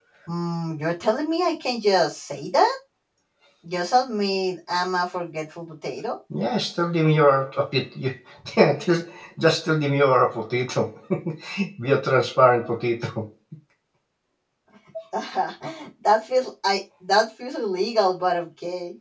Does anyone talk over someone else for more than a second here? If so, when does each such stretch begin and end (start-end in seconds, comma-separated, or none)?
none